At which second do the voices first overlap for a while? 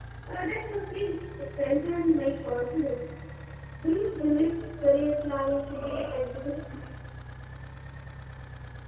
none

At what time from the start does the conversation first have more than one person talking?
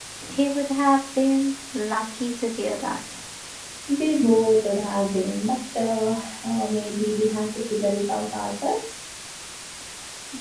none

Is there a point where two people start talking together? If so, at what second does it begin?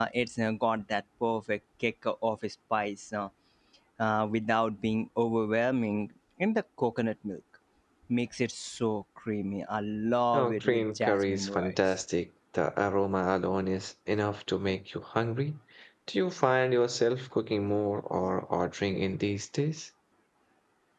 10.3 s

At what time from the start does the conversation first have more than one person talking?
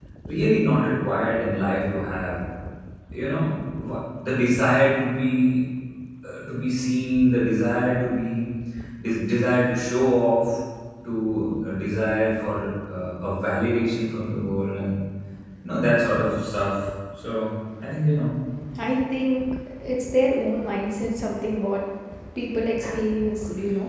none

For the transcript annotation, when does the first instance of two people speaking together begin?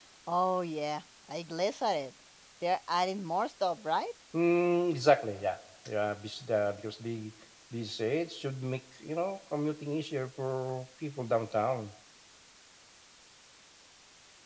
none

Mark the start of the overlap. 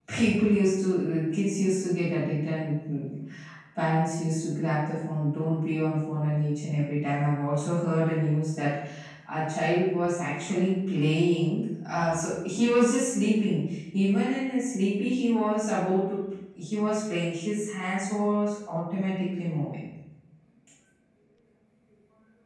none

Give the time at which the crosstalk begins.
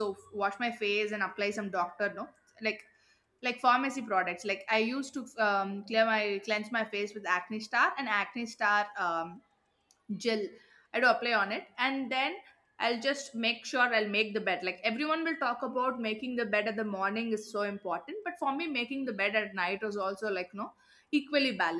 none

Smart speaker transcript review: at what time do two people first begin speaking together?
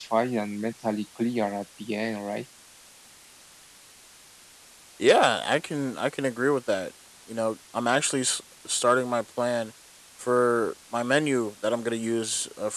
none

